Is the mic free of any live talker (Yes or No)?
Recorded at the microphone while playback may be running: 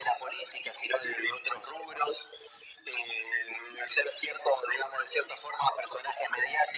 Yes